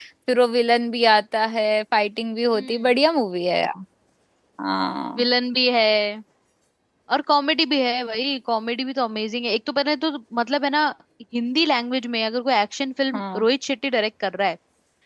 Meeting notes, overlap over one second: none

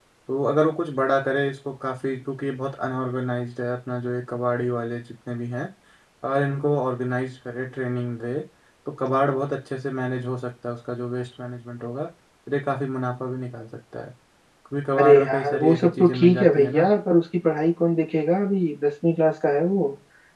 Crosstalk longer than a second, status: present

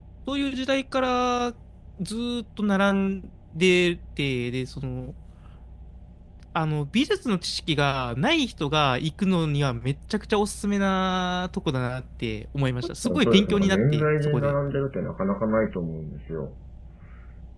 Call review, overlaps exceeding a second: present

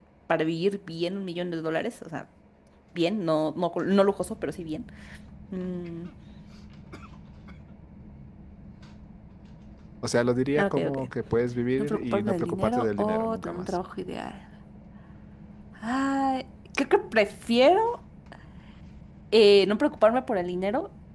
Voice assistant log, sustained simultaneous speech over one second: present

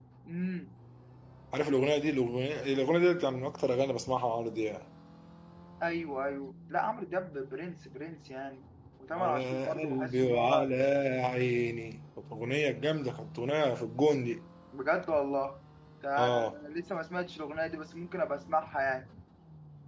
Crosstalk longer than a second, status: present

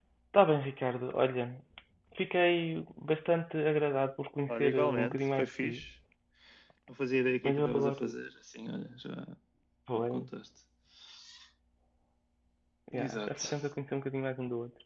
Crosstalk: present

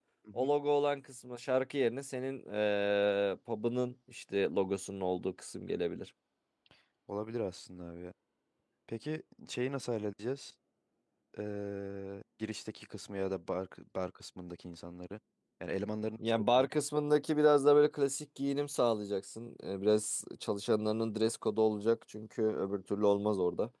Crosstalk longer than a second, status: none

